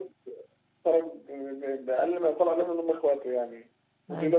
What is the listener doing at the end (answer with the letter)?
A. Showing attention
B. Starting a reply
A